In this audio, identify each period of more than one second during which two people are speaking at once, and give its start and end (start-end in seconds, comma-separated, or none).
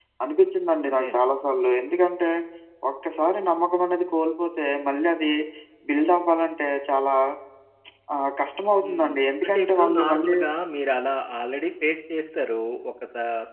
8.8-10.4